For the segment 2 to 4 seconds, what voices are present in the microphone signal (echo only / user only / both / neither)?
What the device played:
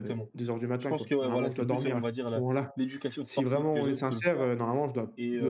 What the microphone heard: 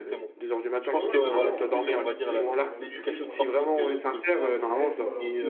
both